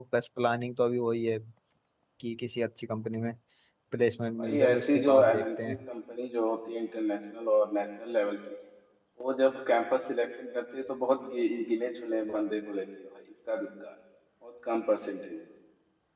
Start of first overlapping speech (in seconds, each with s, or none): 4.4 s